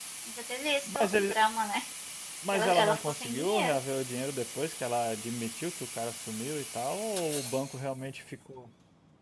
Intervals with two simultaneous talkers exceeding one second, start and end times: 2.5-3.8

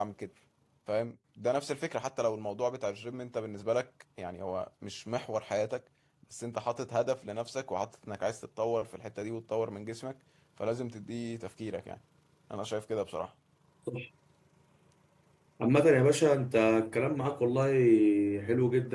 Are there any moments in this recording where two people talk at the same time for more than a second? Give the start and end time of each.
none

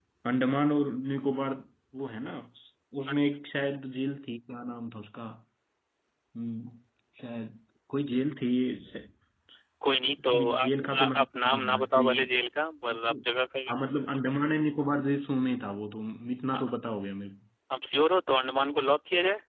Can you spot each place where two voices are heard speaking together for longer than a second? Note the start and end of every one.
10.4-12.1

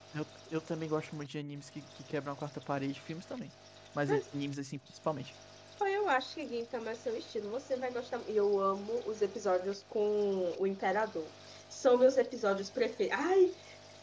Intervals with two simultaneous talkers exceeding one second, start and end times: none

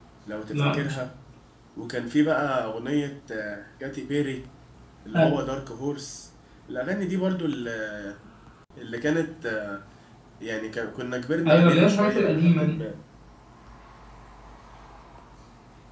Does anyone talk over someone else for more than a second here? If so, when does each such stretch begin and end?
11.5-12.8

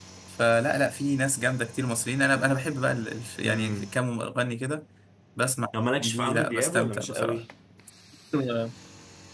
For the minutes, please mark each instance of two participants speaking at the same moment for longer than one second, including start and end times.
6.0-7.4

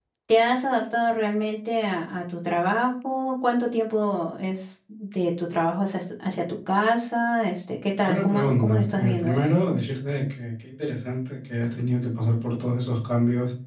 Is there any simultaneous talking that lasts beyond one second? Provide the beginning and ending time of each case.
8.1-9.5

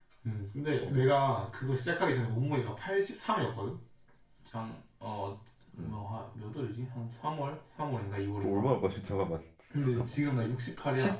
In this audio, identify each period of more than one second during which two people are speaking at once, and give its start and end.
none

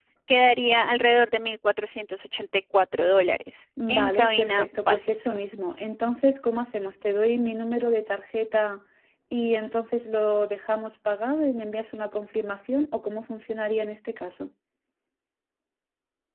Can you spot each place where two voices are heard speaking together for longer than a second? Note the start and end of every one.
3.9-5.4

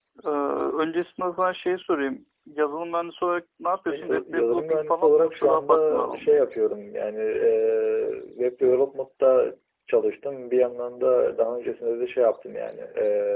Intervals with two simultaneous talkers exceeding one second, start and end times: 3.9-6.3

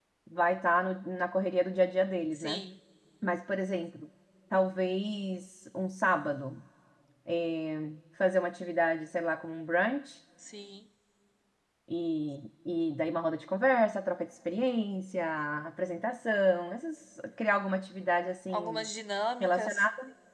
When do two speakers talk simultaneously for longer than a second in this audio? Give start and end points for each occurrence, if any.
none

